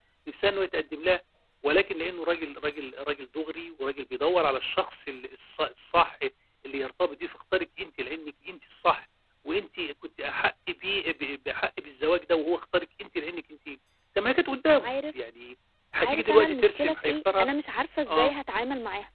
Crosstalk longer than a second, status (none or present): present